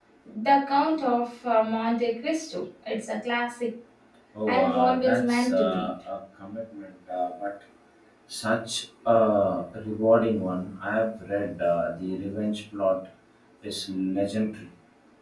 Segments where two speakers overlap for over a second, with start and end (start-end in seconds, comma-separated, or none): 4.5-5.9